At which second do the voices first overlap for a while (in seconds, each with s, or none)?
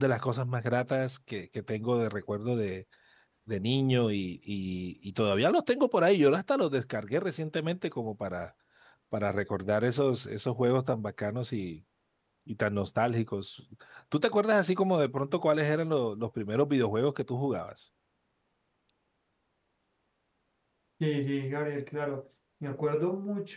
none